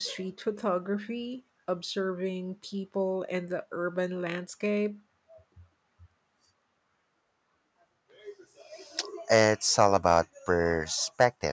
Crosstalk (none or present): none